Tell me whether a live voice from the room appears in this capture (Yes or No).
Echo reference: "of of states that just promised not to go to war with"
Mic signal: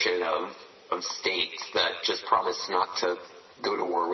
No